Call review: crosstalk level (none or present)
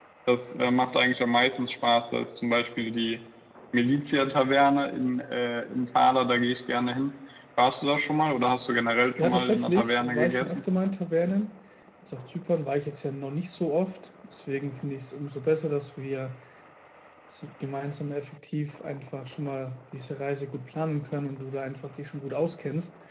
present